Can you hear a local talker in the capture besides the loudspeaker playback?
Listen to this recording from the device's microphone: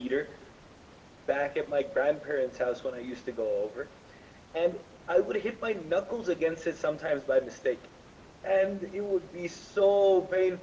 No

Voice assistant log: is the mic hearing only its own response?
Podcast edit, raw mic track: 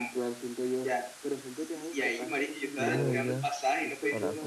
No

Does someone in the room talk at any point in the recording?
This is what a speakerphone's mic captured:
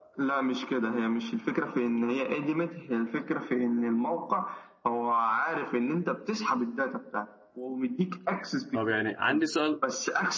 Yes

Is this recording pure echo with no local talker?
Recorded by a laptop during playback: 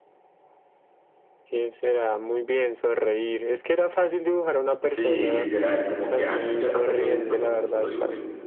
No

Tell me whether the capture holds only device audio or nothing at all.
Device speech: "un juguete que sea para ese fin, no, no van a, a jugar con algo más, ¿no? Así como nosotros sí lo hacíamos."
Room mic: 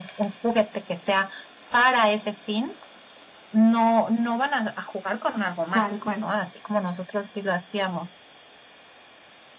No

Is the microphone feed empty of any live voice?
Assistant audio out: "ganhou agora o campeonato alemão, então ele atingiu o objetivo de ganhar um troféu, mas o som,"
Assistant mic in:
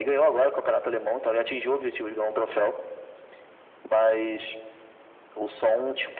Yes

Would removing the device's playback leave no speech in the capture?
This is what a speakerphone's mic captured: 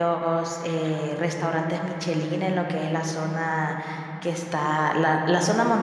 No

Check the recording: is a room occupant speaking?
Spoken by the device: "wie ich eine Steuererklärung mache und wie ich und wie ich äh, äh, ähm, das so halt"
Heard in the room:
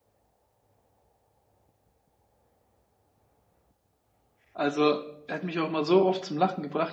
Yes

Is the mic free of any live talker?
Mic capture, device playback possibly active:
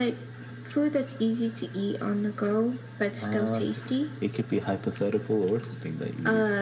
Yes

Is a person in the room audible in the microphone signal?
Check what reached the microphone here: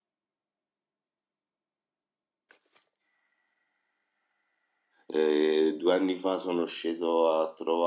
Yes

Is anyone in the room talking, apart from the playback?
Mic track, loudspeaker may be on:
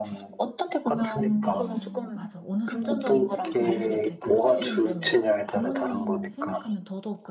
Yes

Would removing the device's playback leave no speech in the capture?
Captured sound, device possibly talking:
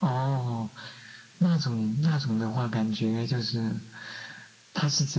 Yes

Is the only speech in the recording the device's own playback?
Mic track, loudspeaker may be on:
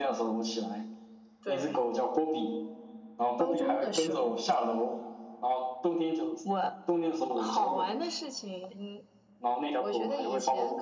No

